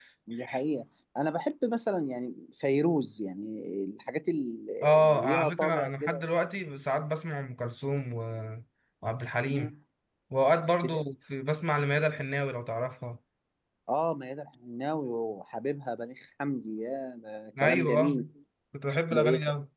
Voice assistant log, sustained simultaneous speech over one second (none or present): present